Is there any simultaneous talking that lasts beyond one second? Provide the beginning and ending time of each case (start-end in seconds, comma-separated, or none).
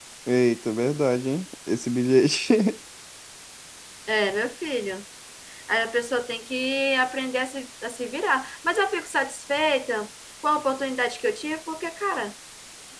none